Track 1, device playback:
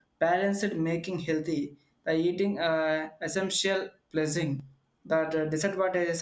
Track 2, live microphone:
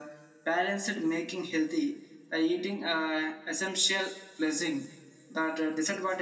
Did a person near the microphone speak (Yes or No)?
No